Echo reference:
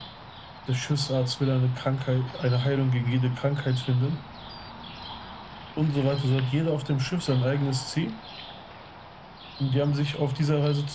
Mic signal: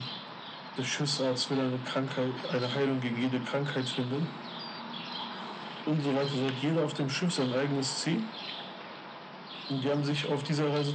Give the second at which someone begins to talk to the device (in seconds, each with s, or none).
none